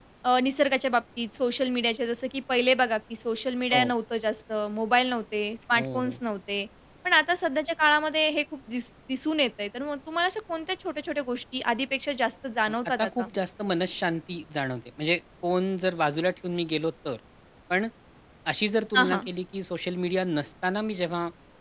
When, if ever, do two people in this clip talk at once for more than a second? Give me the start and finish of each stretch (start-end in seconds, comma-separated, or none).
none